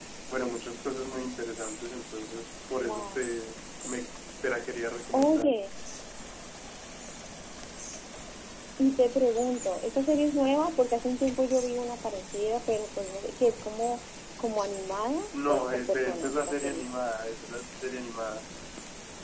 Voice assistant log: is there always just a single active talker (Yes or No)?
No